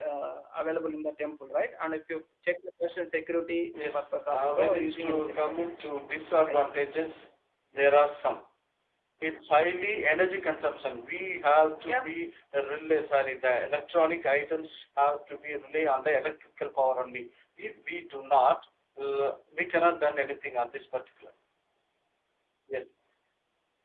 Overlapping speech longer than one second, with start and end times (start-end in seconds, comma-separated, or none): 3.9-5.9